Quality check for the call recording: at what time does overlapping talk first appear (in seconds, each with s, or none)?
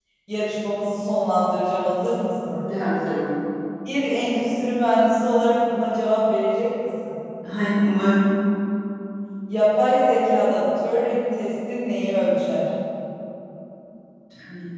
none